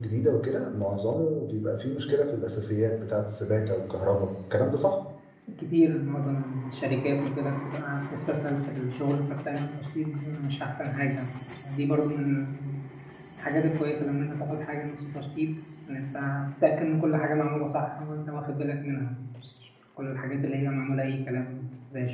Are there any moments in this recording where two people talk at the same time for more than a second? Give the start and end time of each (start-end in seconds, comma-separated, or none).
none